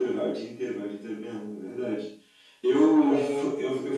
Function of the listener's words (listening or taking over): listening